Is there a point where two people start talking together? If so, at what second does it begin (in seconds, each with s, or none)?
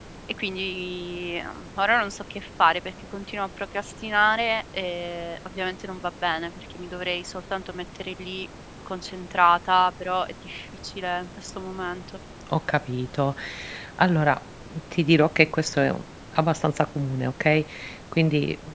none